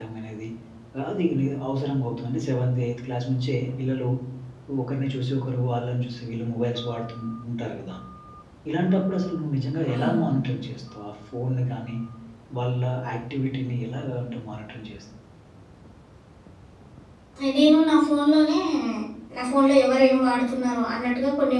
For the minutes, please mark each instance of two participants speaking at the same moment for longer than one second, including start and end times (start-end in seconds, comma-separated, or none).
none